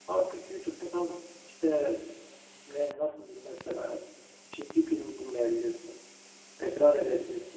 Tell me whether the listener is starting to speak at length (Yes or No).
No